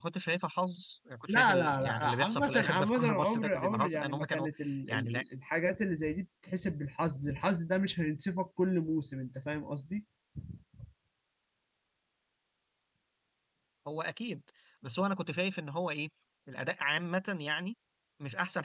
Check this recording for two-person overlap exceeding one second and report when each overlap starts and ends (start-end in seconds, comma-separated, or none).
1.3-4.5